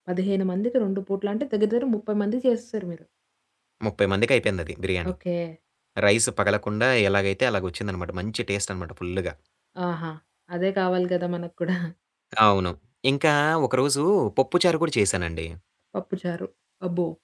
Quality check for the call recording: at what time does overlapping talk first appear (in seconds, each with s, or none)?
none